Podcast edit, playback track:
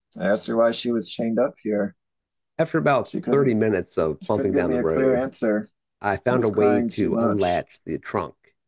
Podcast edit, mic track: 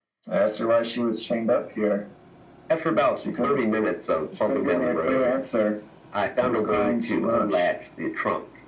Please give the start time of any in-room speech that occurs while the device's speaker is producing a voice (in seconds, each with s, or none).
none